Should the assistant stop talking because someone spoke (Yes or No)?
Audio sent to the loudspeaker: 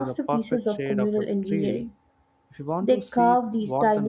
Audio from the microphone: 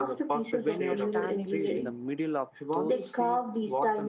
Yes